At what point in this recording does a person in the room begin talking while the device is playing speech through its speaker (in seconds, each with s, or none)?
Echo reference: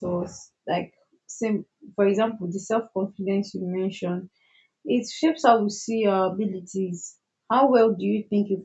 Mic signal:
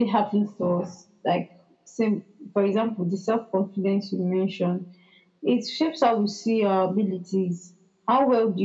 none